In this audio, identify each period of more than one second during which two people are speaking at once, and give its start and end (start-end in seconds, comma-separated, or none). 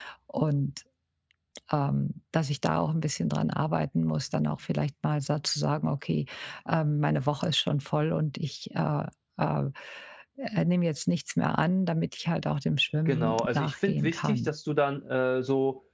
13.1-14.5